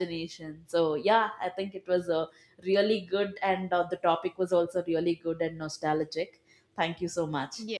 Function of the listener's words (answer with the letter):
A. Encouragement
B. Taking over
B